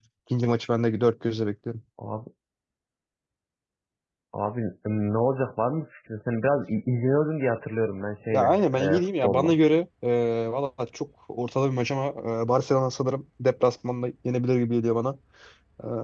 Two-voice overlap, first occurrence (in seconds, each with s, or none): 8.3 s